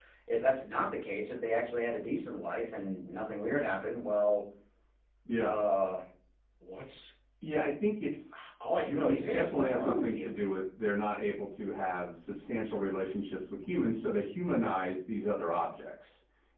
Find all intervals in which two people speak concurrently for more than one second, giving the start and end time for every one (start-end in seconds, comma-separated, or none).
8.9-10.3